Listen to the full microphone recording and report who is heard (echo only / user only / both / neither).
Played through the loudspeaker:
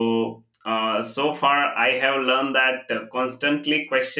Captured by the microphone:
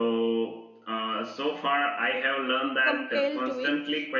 both